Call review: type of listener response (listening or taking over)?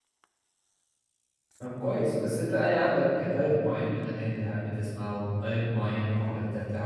listening